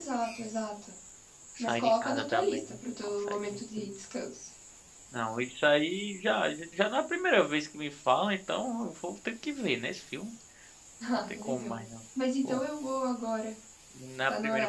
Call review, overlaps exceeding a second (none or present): present